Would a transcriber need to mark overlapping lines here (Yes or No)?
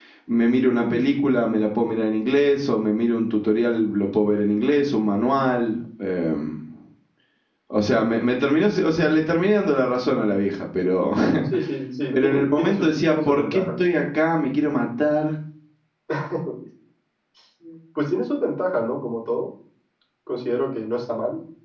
Yes